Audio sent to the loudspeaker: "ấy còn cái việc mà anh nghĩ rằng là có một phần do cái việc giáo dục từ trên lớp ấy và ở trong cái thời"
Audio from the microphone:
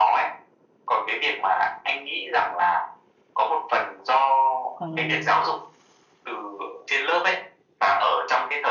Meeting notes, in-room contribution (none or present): present